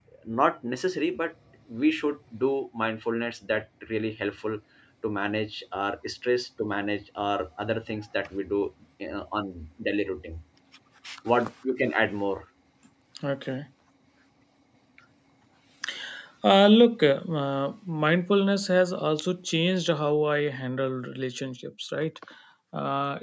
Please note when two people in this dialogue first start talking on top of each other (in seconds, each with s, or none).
none